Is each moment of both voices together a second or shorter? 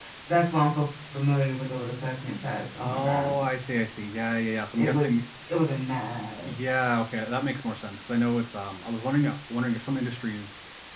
Yes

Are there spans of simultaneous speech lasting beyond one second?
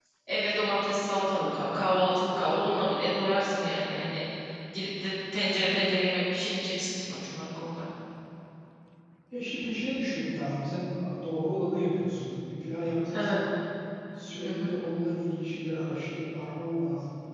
No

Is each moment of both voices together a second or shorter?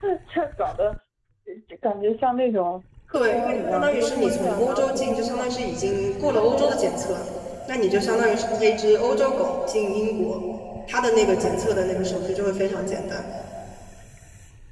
No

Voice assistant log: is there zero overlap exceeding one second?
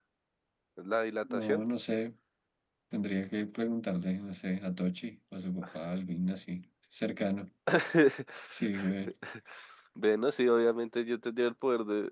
Yes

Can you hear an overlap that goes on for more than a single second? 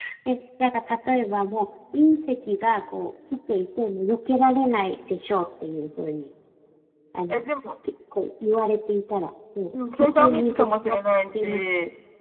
Yes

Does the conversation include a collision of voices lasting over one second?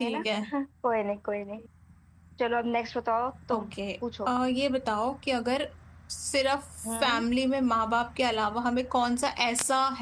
No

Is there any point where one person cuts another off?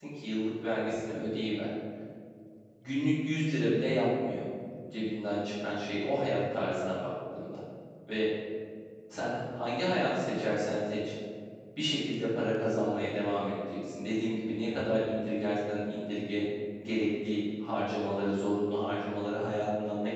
No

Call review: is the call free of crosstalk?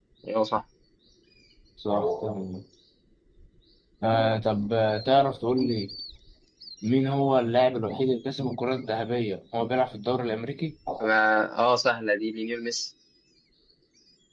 Yes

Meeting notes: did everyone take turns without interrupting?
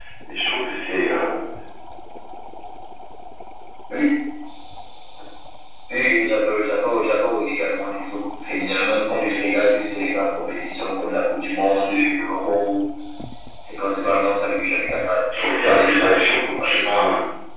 No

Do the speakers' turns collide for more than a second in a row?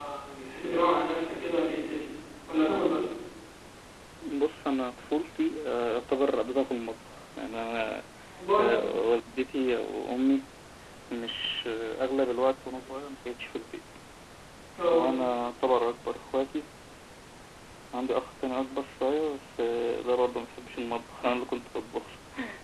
No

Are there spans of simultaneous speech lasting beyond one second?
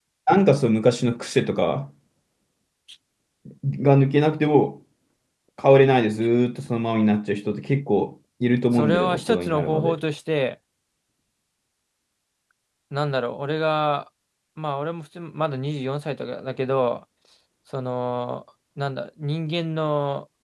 Yes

